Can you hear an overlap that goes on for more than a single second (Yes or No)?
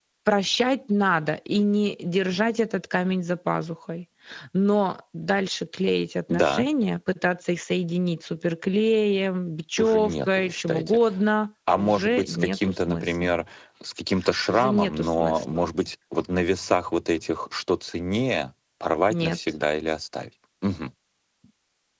Yes